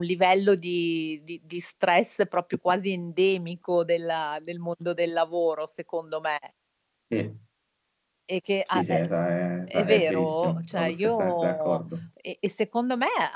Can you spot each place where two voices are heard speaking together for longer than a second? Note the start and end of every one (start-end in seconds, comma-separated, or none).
9.7-11.8